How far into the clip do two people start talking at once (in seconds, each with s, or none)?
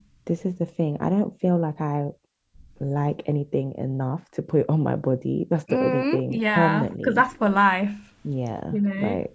5.7 s